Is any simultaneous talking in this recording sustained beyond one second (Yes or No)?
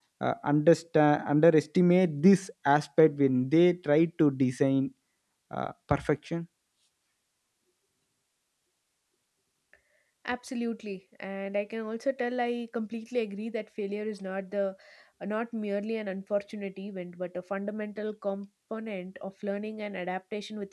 No